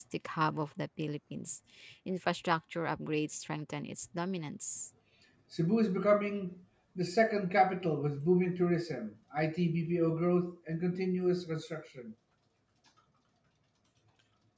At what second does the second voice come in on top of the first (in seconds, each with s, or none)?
none